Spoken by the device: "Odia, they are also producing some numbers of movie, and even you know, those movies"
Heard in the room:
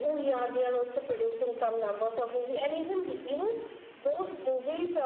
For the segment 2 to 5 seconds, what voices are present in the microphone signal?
echo only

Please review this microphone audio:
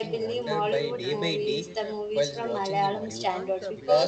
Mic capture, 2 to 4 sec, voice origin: both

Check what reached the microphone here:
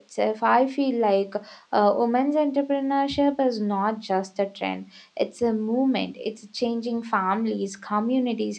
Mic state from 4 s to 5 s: user only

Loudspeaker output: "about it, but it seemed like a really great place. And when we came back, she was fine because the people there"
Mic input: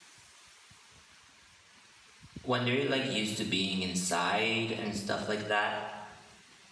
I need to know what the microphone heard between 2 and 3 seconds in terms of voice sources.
user only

